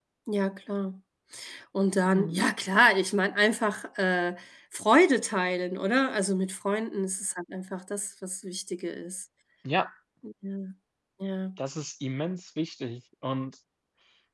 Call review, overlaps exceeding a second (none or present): none